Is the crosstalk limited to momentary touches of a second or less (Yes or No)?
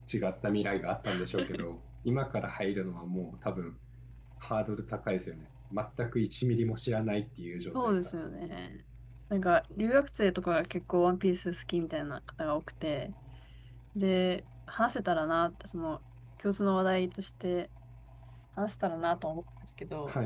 Yes